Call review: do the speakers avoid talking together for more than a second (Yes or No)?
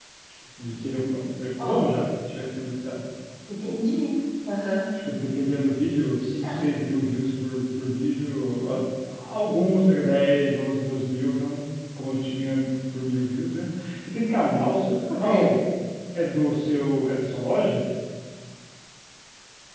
Yes